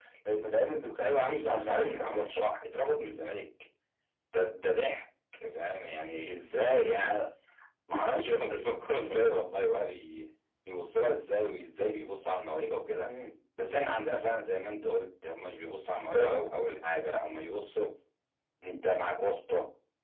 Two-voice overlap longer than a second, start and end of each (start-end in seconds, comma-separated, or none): 1.0-2.4